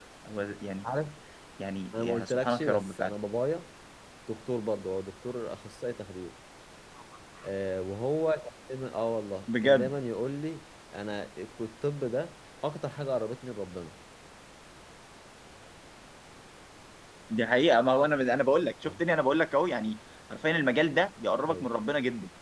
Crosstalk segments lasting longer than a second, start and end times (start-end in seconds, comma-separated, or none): 1.9-3.1